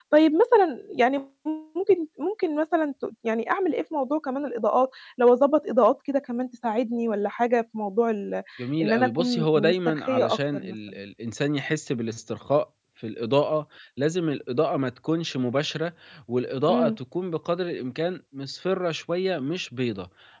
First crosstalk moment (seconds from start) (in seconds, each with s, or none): 8.8 s